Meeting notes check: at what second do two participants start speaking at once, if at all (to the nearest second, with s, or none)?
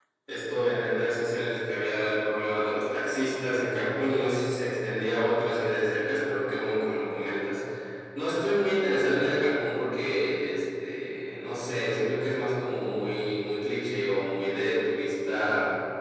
none